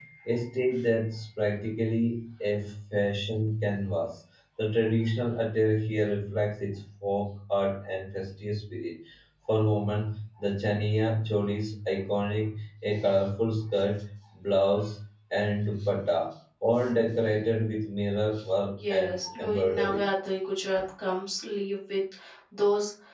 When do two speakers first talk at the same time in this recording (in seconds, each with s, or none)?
18.8 s